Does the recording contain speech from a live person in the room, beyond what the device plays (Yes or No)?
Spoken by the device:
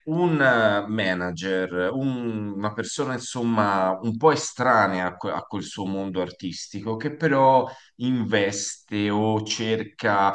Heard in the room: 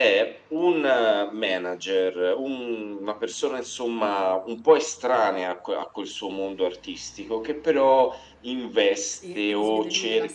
Yes